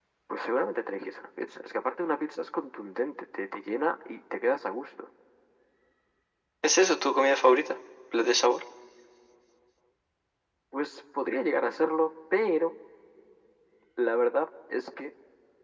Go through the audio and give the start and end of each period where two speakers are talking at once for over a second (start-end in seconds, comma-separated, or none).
none